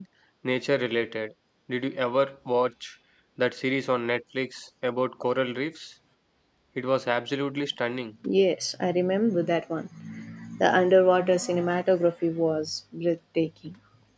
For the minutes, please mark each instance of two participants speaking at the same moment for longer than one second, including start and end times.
none

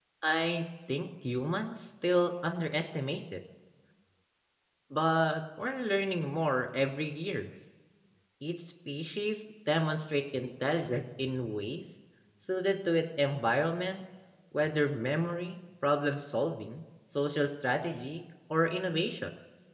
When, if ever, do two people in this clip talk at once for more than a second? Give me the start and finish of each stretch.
none

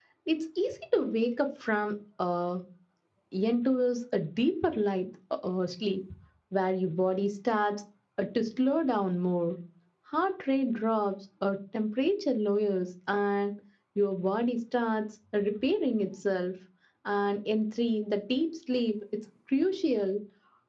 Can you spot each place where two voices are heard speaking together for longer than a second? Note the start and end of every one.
none

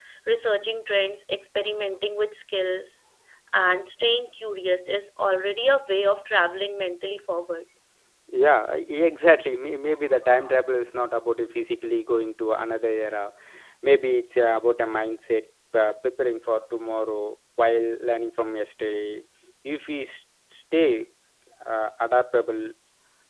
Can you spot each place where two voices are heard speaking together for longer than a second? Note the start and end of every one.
none

